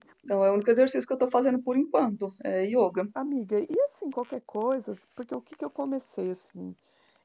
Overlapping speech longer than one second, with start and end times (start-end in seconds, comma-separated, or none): none